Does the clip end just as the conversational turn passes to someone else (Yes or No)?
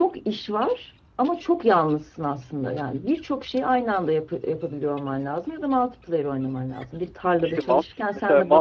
Yes